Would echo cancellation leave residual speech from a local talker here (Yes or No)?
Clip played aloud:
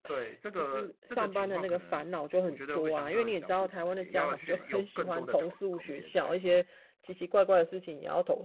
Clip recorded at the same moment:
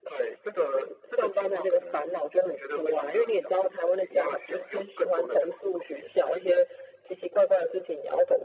No